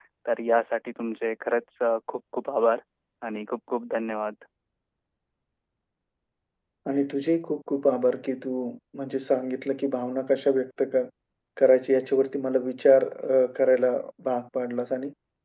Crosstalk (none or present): none